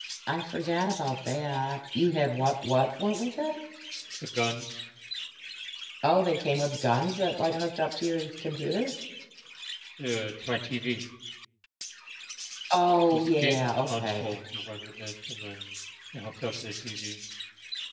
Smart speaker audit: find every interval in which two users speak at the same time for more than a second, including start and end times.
13.1-14.3

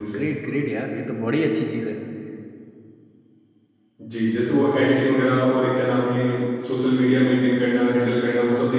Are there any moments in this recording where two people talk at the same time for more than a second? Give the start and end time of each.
none

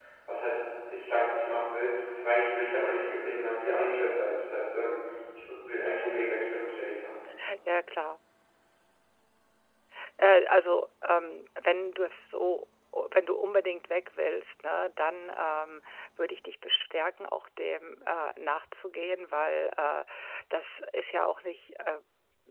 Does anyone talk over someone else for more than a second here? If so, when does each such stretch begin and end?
none

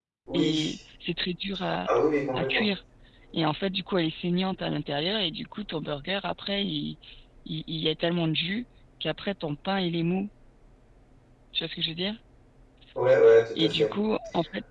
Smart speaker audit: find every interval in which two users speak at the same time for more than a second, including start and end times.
none

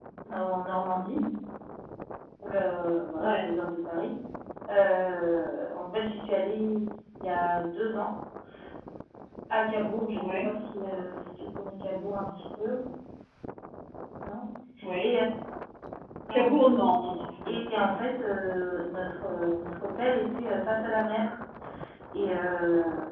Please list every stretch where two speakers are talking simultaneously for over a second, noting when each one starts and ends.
none

